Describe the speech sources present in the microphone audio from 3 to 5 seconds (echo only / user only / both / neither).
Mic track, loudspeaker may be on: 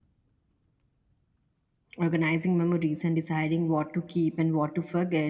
user only